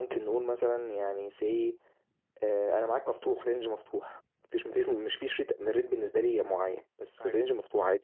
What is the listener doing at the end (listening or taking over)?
listening